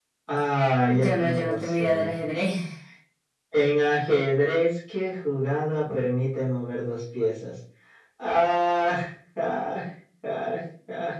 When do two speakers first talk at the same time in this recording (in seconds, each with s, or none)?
0.9 s